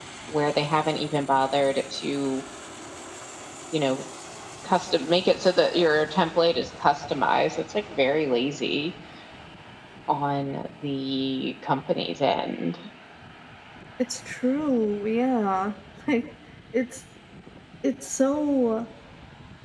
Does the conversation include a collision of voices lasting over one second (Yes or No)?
No